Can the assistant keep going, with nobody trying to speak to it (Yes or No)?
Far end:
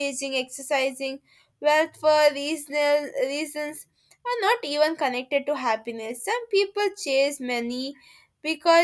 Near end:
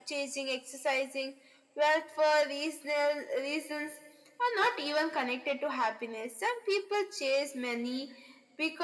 Yes